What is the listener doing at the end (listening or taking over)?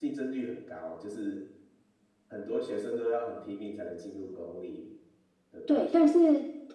taking over